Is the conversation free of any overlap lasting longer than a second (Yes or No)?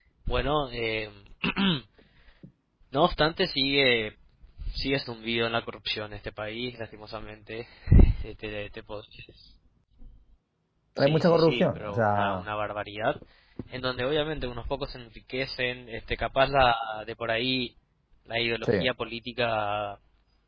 No